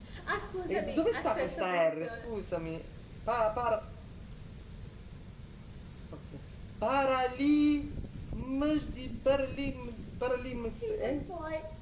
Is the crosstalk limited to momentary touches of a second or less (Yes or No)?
No